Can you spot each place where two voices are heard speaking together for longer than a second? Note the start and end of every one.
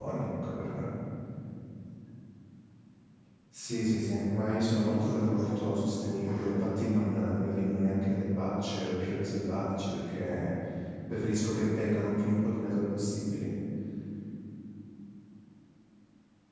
4.5-5.9

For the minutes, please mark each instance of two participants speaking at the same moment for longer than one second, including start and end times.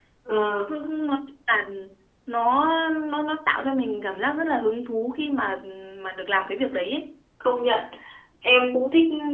none

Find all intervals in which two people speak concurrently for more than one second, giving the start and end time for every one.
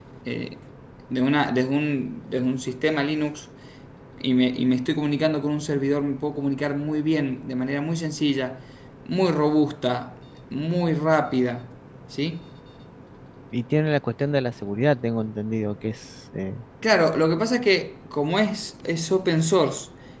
none

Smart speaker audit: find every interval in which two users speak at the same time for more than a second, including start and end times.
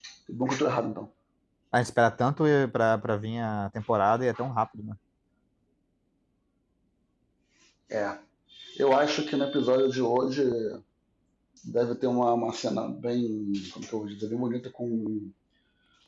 none

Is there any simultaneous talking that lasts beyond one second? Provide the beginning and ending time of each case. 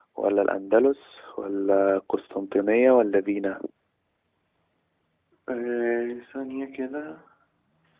none

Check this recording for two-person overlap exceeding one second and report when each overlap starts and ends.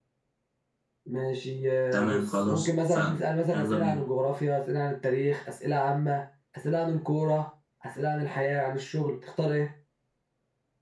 1.9-3.1

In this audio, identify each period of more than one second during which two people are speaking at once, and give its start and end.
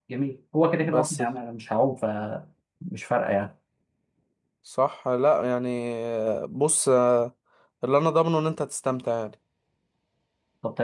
none

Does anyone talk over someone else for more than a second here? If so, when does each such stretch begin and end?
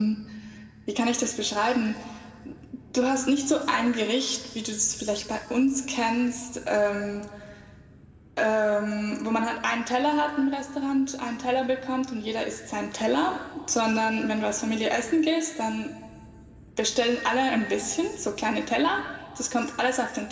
none

